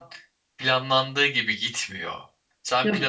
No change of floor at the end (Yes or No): Yes